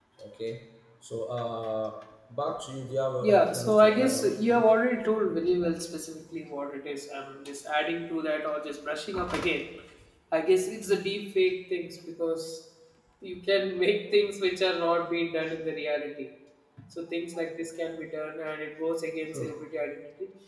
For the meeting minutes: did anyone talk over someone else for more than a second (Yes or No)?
Yes